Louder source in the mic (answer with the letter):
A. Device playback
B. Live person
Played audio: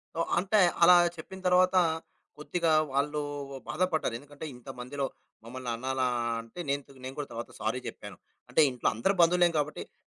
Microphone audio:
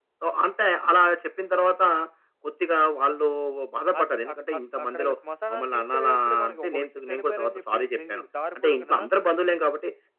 A